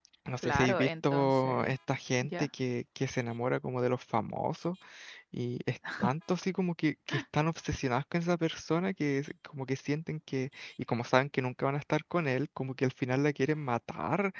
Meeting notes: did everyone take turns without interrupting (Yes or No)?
No